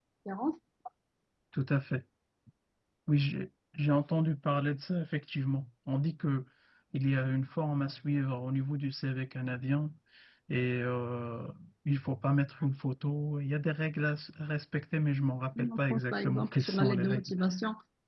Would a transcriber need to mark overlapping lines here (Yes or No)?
Yes